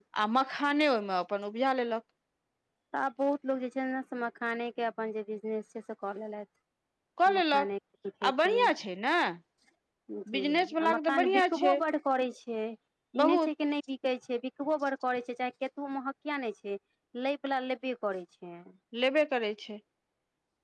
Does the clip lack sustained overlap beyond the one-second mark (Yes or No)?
No